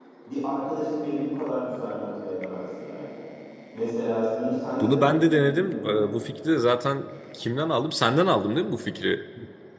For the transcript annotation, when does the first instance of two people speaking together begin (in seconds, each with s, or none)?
4.8 s